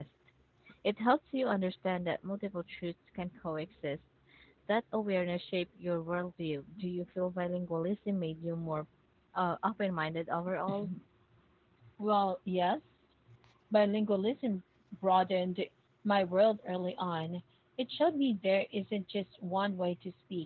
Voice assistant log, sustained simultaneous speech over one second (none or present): none